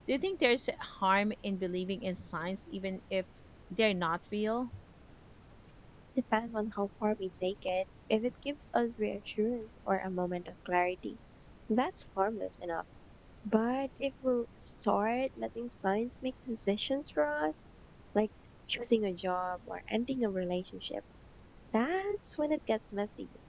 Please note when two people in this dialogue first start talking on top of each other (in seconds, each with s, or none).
none